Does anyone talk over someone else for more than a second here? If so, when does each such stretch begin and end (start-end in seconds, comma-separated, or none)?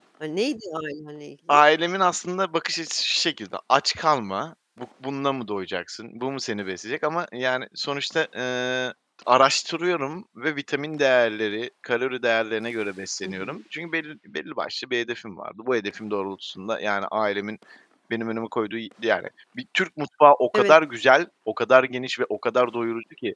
none